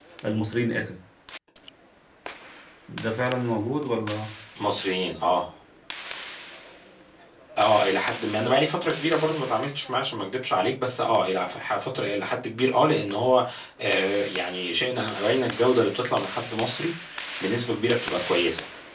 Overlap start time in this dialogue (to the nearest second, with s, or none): none